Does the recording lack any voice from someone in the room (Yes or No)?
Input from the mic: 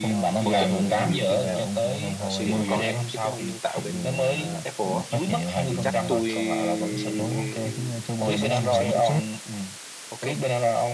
No